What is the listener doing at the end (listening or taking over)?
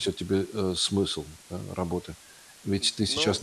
listening